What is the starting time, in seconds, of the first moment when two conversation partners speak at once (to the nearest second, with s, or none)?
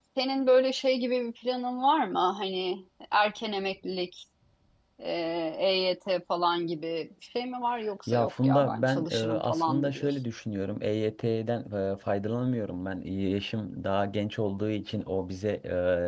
8 s